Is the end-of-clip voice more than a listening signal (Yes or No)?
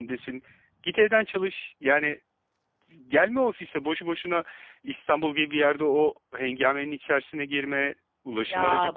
Yes